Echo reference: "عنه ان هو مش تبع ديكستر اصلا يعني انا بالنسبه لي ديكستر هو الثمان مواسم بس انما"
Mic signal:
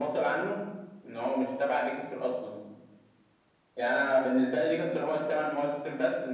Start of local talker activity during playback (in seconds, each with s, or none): none